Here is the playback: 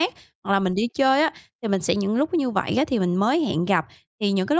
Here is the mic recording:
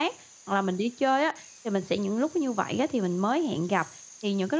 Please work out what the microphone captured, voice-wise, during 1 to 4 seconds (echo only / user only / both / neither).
echo only